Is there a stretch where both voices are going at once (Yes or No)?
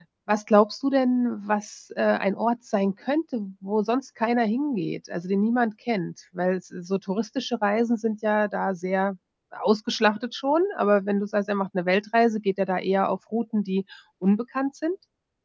No